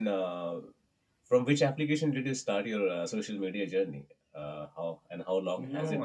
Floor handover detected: Yes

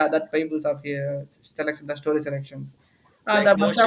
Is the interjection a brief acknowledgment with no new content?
No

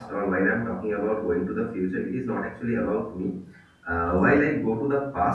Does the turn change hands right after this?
No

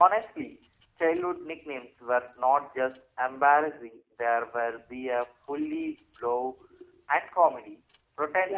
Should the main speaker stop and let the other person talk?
Yes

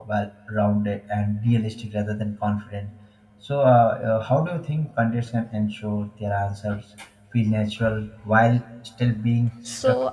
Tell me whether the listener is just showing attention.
No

